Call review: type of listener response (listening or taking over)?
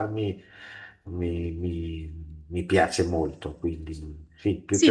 taking over